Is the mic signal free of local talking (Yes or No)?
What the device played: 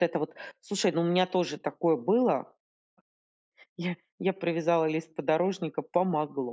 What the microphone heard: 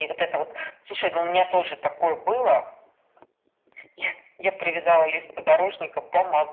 Yes